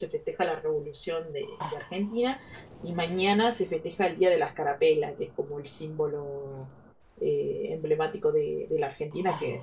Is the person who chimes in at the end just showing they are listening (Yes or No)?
Yes